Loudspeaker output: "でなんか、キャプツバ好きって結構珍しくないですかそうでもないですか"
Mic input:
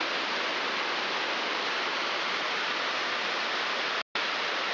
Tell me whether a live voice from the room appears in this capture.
No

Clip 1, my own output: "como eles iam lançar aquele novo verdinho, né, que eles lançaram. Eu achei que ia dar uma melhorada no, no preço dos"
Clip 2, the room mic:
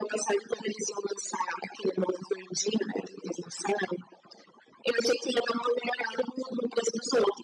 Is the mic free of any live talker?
Yes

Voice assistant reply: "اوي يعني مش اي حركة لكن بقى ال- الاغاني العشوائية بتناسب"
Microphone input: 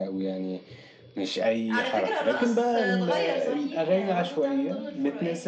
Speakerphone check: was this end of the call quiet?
No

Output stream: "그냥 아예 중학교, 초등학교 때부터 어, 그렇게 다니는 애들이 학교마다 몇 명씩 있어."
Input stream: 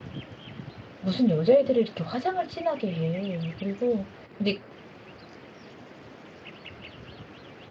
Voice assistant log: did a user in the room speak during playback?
Yes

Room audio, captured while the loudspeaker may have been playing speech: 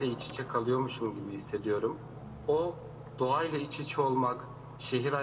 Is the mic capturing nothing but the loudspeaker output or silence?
Yes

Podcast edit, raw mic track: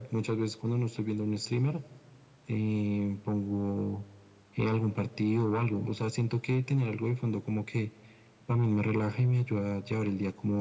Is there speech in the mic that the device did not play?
No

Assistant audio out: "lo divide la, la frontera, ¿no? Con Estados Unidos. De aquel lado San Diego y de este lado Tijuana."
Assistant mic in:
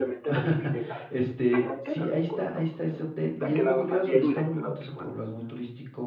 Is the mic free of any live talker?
No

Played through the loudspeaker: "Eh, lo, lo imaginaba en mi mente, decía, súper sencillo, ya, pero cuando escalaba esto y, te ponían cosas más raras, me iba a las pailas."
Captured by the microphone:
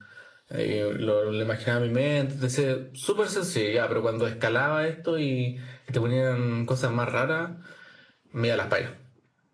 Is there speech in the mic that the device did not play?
No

